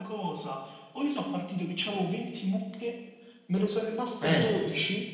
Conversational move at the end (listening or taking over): listening